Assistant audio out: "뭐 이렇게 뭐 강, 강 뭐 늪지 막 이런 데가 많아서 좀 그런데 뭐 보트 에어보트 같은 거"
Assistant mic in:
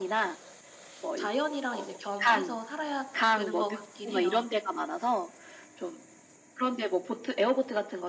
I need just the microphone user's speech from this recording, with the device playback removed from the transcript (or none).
자연이랑 이제 겸해서 살아야 되는 것 같긴 해요.